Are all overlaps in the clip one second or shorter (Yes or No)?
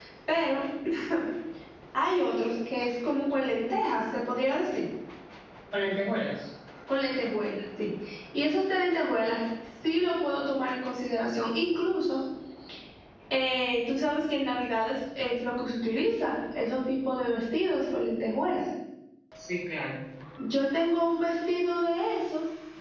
Yes